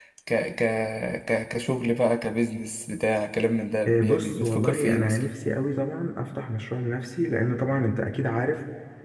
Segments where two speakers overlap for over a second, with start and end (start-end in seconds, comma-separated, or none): 3.9-5.2